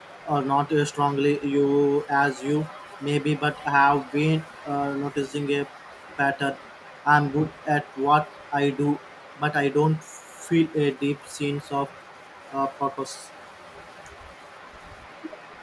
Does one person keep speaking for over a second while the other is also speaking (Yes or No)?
No